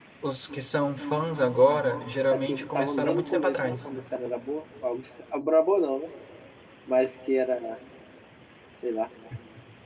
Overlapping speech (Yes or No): Yes